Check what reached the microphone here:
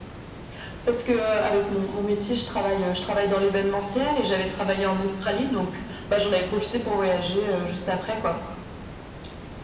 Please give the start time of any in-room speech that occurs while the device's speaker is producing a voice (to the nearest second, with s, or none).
none